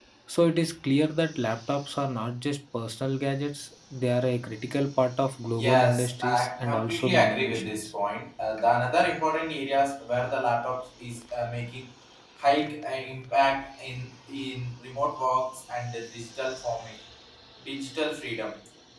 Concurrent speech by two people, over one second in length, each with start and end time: 5.6-7.9

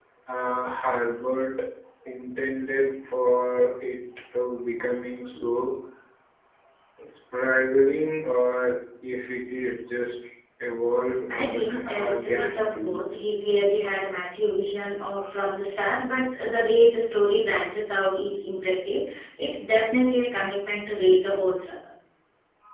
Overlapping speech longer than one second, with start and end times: 11.3-13.0

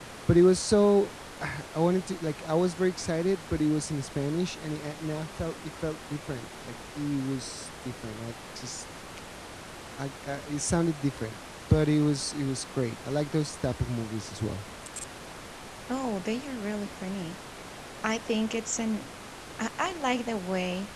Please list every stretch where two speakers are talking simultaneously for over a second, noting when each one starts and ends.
none

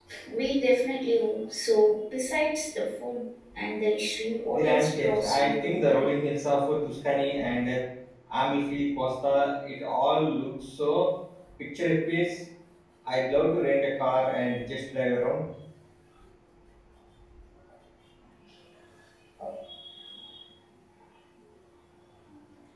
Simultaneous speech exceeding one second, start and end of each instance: 4.5-6.1

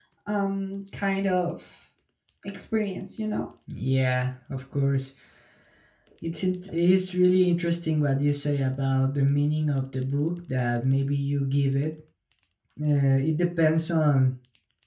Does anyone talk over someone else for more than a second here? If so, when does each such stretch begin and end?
none

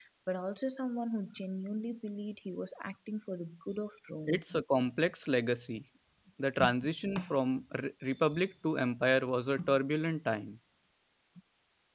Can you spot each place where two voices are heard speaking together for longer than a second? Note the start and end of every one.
none

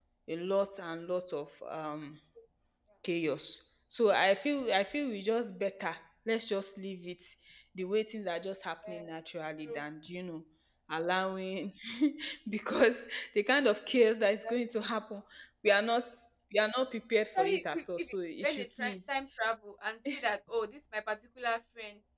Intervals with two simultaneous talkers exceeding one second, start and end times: 17.4-19.1

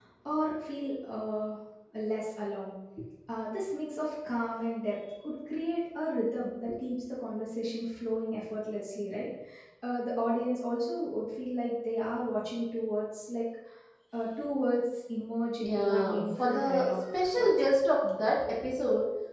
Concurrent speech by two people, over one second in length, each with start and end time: 15.6-17.7

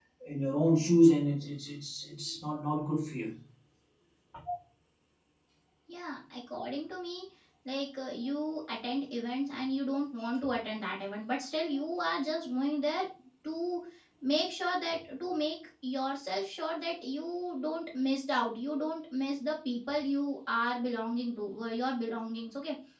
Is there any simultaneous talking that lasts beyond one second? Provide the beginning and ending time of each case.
none

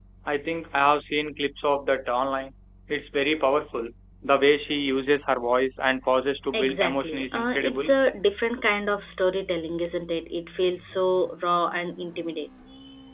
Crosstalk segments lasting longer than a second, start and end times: 6.5-7.9

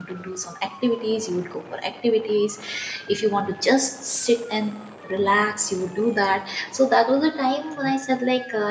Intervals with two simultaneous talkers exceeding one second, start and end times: none

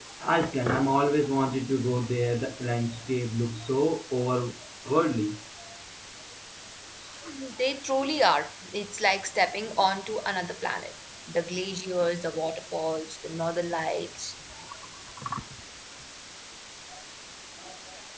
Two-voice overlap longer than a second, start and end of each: none

